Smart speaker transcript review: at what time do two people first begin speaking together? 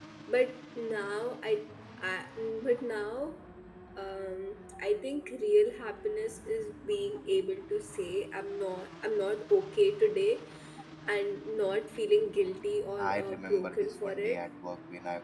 13.0 s

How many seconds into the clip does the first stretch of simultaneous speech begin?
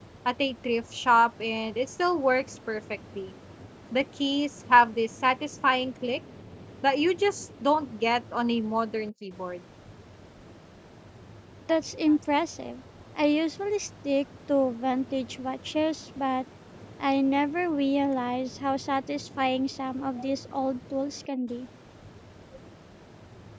none

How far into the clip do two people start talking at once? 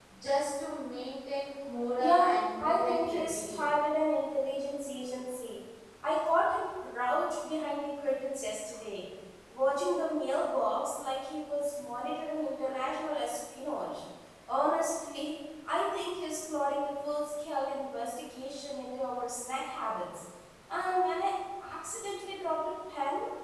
2.0 s

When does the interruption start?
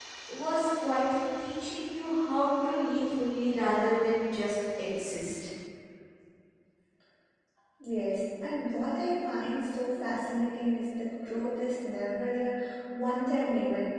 none

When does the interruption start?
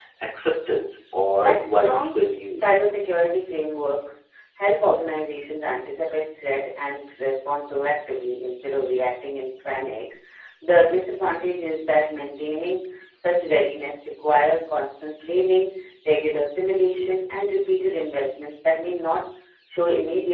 1.4 s

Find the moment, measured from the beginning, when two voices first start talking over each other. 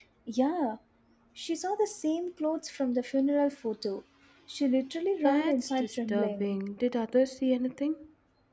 5.2 s

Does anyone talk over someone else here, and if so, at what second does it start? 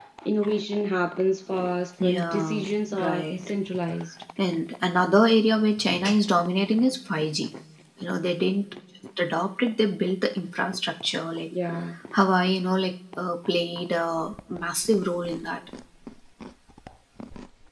2.0 s

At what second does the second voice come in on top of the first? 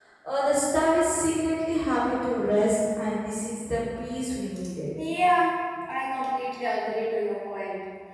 none

